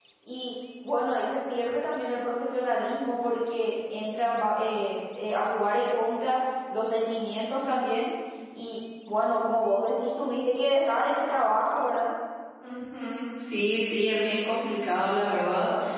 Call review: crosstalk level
none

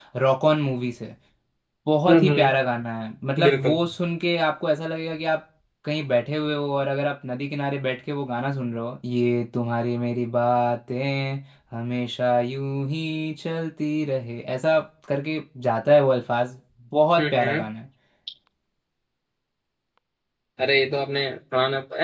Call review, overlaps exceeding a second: none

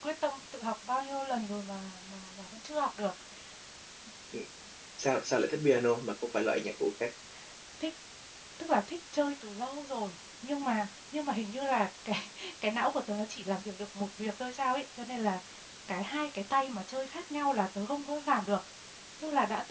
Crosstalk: none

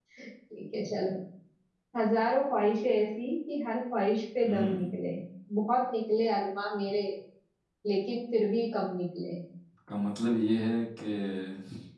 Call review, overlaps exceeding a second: none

